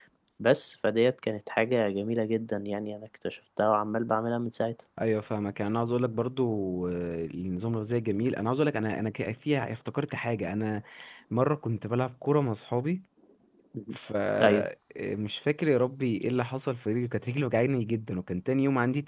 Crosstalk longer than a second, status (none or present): none